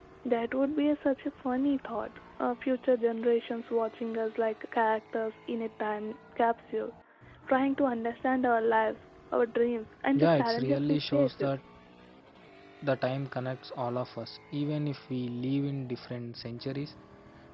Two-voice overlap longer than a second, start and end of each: 10.2-11.4

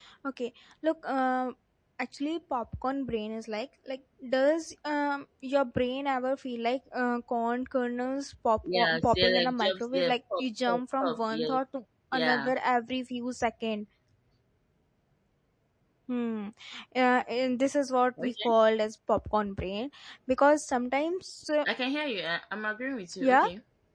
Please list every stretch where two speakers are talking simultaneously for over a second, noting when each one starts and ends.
8.7-11.6

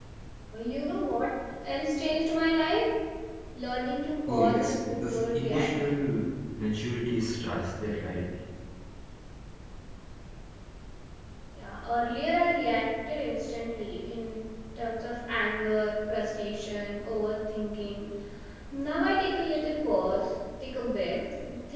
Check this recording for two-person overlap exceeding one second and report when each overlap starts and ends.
4.3-6.0

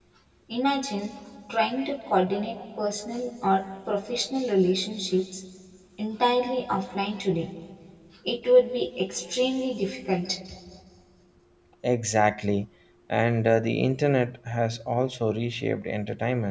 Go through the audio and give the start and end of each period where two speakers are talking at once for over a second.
none

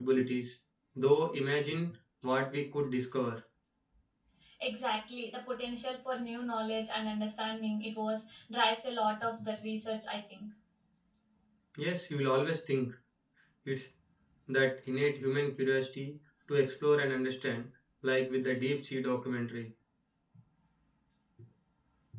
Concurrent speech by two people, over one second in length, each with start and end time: none

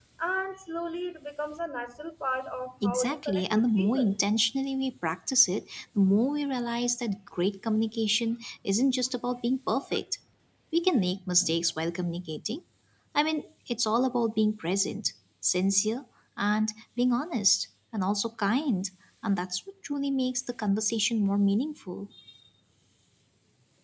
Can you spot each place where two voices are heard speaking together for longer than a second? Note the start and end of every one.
2.8-4.2

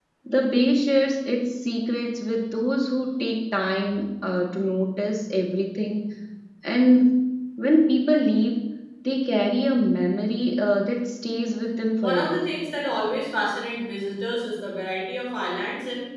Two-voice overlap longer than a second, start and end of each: none

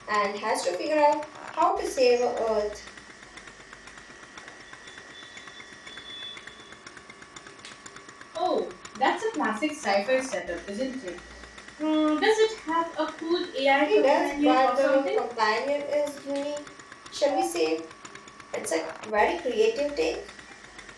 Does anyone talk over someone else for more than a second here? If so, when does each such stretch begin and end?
13.9-15.2

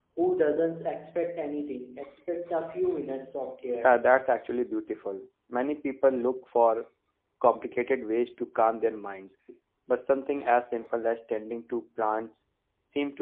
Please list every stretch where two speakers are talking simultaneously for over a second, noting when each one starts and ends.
none

